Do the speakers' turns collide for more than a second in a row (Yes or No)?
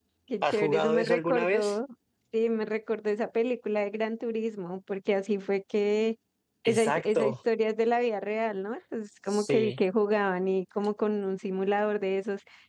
Yes